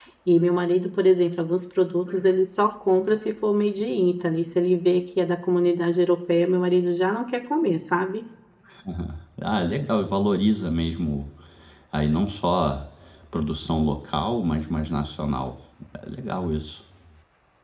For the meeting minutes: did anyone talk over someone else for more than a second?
No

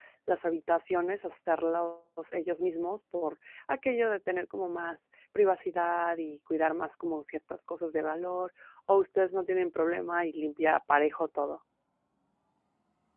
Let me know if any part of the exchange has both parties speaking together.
No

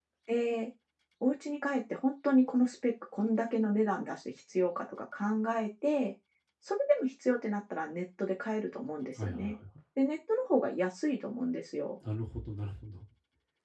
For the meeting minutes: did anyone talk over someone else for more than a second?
No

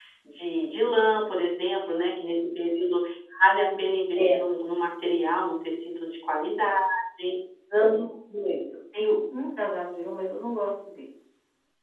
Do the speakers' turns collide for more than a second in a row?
No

